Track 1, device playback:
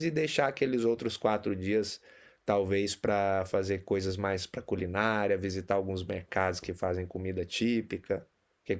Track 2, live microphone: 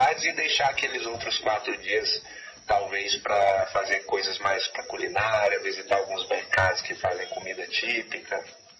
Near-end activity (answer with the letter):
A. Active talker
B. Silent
B